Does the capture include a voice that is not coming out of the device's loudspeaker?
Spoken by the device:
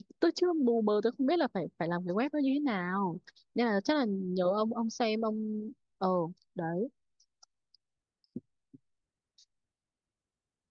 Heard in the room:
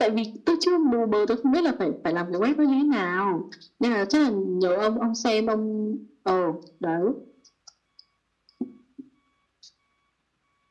No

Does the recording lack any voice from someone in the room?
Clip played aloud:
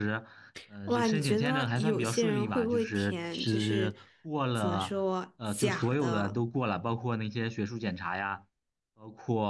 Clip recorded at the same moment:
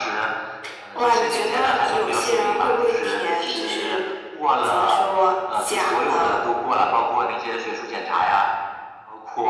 Yes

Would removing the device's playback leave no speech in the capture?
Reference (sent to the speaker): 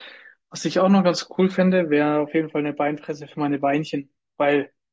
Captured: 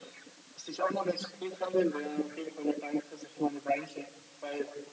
Yes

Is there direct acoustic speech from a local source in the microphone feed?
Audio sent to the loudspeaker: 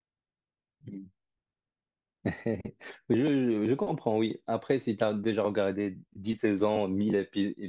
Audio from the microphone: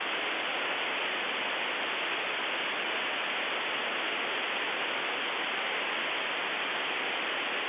No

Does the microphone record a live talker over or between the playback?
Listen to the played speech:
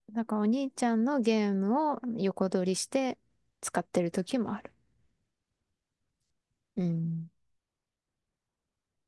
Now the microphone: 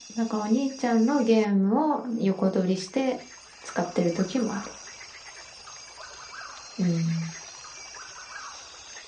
No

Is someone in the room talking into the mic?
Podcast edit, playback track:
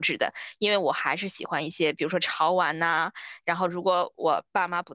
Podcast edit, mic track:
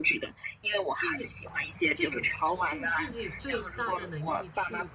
Yes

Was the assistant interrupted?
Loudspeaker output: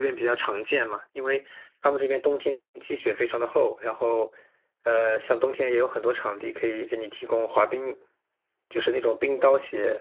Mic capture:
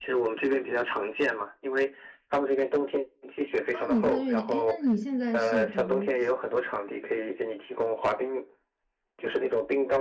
Yes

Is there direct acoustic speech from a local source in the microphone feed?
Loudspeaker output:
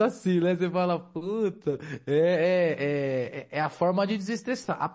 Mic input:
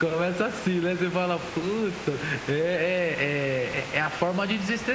No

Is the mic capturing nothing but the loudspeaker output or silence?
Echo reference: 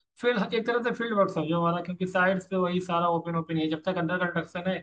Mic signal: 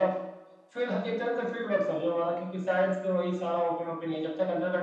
Yes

